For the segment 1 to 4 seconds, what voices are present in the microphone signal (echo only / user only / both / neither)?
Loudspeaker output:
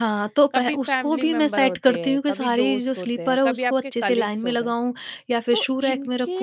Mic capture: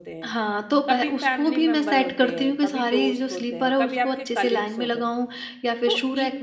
echo only